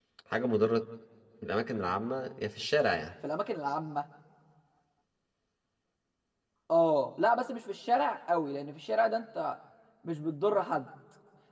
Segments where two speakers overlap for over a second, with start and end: none

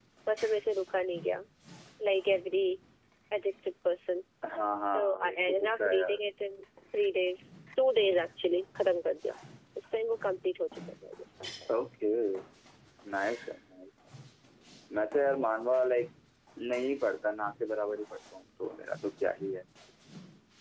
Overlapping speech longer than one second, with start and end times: 4.9-6.2

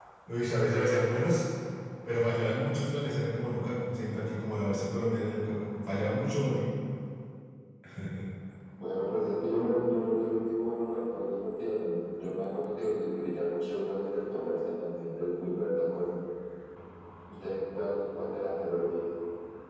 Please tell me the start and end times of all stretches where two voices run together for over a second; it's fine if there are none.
none

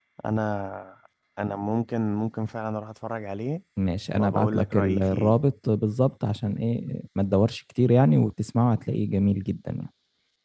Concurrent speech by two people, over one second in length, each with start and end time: 4.2-5.4

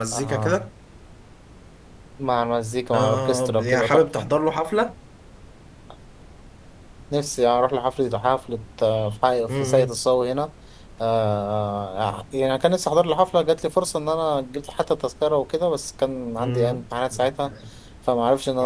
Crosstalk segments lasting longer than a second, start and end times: 2.9-4.3

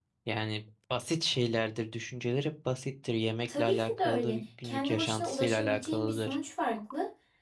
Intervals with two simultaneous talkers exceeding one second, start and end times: 3.5-6.4

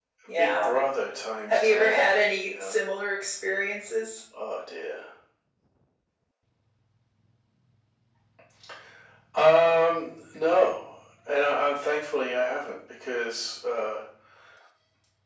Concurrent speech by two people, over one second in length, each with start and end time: 1.5-2.8

